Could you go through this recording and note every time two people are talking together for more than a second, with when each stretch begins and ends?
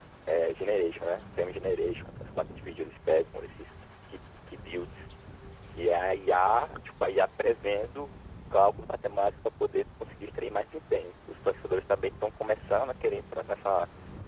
none

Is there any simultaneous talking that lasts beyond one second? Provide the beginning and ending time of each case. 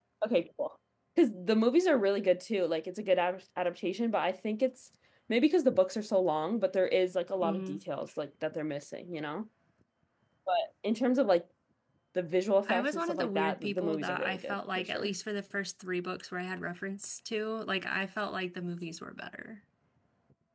12.7-15.1

